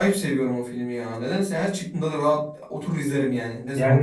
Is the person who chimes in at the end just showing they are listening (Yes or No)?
No